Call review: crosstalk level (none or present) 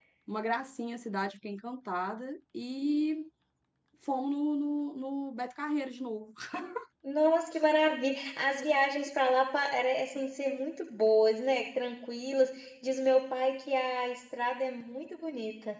none